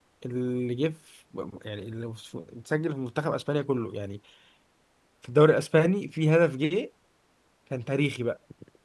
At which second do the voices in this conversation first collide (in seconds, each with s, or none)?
none